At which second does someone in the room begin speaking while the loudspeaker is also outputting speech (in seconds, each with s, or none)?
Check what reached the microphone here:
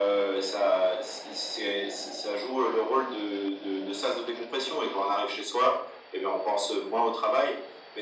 none